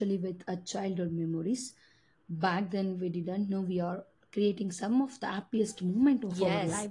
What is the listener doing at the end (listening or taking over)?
taking over